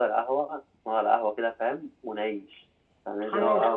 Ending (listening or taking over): taking over